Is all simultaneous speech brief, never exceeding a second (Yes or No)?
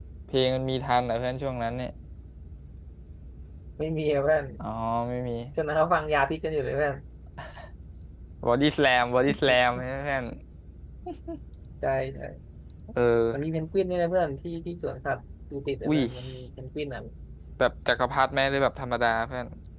Yes